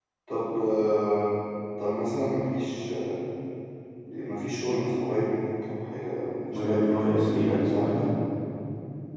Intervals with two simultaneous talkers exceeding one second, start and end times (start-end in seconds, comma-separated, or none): 6.5-8.1